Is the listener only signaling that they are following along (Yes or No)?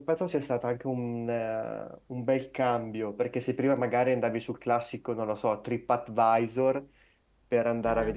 Yes